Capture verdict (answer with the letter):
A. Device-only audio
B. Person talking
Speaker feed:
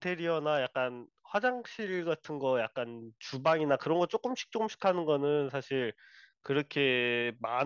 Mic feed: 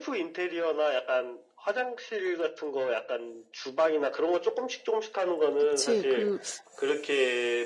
B